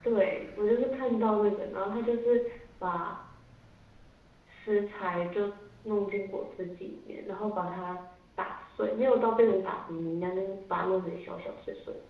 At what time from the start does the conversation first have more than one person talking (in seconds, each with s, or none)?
none